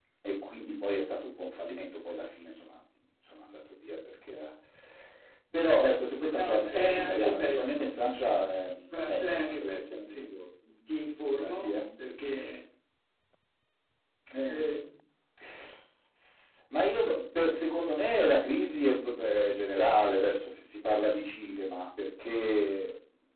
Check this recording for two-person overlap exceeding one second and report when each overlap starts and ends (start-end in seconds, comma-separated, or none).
6.4-7.9, 8.9-10.2